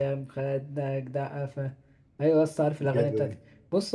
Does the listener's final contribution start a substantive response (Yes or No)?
No